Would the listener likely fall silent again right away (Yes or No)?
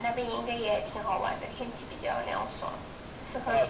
No